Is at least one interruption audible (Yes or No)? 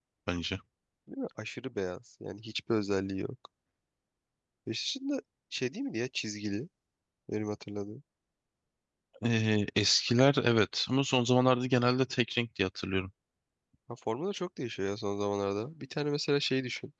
No